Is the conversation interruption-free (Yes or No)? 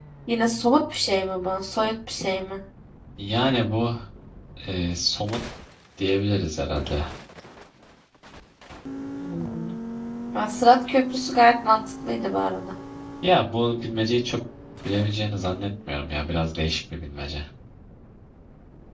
Yes